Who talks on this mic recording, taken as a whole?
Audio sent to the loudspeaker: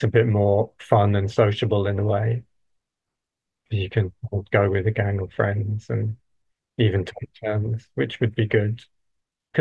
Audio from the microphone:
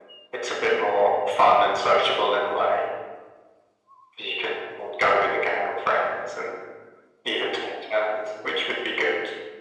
echo only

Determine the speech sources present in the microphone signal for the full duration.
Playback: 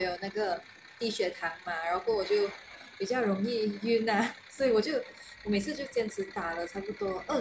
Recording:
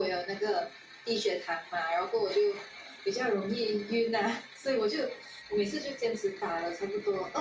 echo only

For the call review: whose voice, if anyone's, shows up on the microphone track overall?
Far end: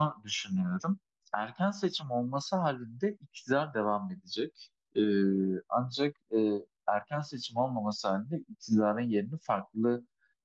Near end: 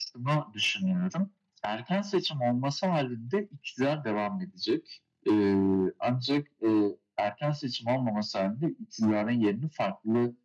echo only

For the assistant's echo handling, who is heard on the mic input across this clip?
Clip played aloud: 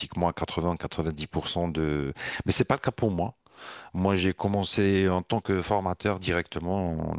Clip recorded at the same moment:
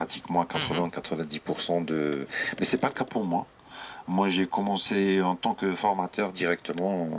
both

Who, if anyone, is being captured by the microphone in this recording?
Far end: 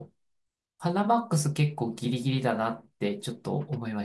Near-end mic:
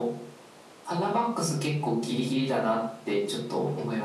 echo only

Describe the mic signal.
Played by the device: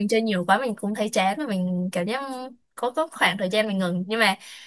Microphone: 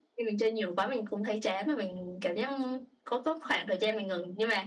echo only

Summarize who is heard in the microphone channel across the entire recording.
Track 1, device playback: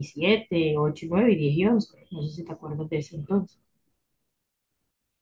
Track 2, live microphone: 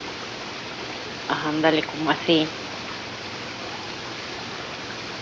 user only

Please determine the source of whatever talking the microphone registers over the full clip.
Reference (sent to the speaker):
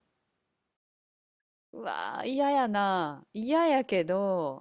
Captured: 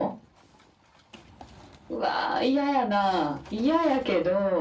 echo only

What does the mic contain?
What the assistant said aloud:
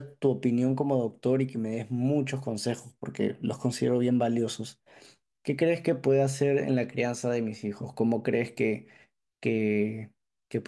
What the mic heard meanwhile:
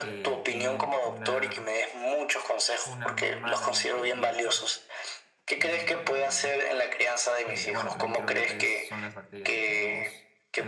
both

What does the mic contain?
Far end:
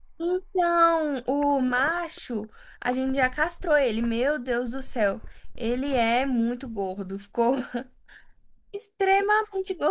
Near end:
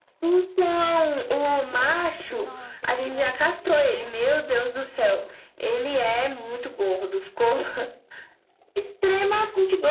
both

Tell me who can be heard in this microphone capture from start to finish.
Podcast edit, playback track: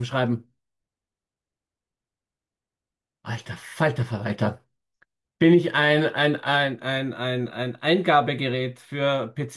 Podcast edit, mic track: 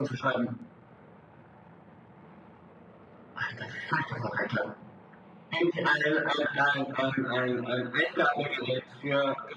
echo only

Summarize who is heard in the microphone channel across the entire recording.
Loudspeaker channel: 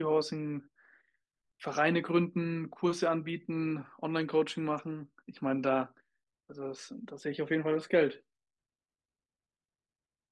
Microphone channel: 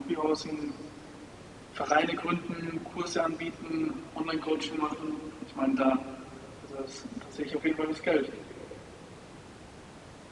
echo only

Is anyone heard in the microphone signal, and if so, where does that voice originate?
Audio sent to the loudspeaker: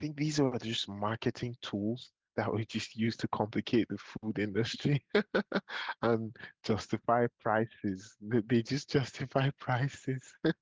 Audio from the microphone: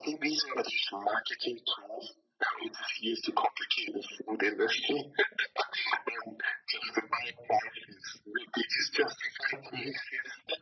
echo only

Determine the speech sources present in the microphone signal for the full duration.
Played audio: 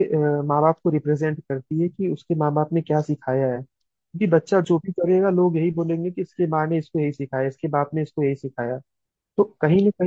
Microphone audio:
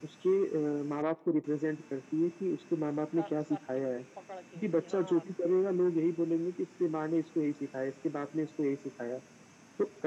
both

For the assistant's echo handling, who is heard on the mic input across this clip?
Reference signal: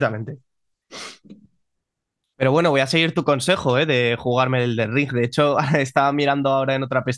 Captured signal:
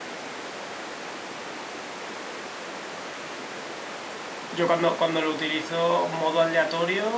user only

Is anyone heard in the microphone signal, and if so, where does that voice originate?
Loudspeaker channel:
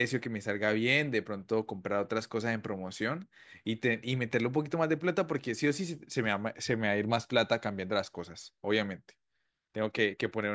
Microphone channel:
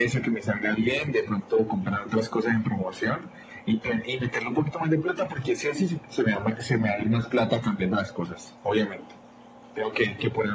echo only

